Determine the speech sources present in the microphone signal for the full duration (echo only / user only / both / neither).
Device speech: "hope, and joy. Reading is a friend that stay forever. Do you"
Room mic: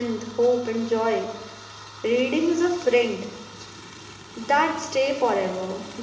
echo only